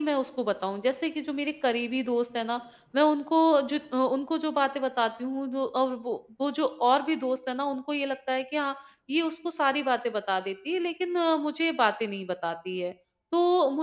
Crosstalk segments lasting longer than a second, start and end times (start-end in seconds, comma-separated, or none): none